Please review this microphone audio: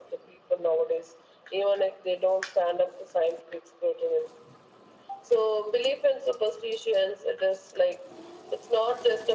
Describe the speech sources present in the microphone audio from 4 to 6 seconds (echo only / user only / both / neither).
echo only